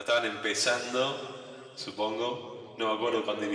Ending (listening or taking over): listening